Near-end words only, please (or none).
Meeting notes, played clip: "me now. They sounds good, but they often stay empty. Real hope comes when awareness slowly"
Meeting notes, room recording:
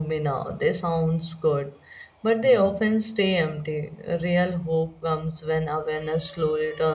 Hmm.